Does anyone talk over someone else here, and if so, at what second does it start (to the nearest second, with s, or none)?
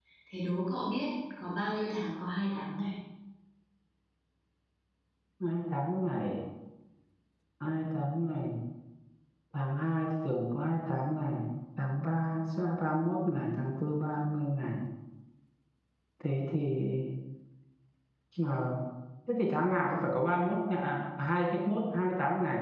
none